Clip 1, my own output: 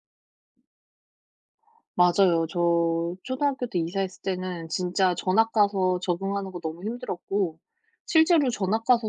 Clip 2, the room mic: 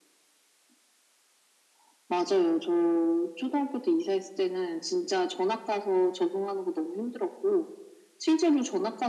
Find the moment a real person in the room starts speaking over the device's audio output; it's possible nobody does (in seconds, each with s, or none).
none